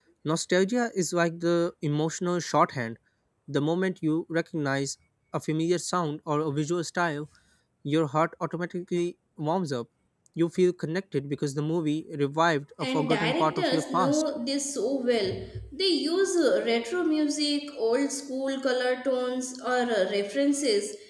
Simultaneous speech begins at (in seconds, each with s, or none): 12.8 s